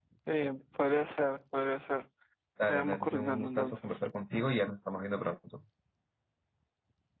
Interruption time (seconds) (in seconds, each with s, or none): 2.7 s